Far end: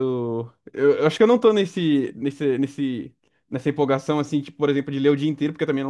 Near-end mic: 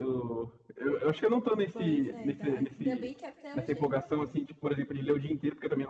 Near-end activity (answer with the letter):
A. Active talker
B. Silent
A